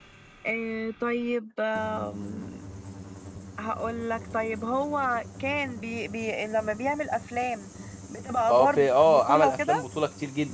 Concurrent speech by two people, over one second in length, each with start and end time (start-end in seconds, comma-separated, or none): 8.5-9.8